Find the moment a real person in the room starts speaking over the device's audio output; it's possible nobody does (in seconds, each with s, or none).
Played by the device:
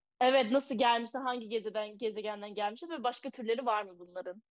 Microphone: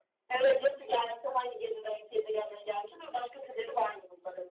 none